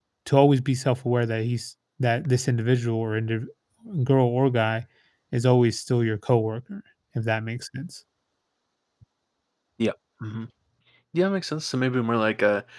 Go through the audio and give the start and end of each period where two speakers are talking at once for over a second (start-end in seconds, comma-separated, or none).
none